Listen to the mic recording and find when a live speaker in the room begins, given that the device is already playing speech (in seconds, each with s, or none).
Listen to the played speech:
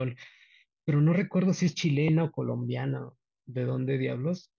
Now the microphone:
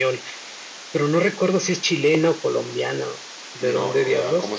3.6 s